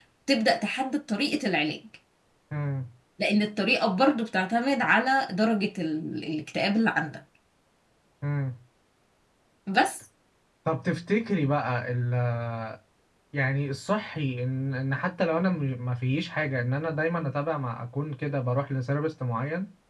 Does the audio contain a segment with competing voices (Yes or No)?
No